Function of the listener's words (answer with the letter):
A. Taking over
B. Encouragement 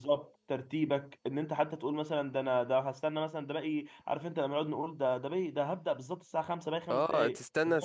A